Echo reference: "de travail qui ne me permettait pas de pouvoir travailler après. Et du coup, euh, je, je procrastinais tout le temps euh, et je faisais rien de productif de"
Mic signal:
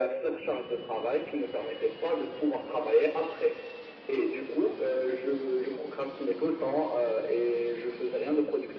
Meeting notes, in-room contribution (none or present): none